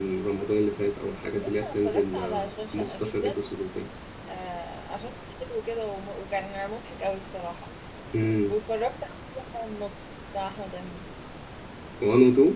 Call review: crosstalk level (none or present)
present